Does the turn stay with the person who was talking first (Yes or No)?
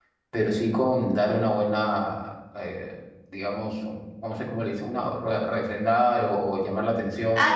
No